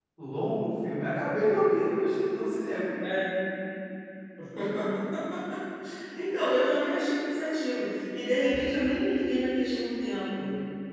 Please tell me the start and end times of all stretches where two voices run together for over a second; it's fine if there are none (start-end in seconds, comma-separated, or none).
none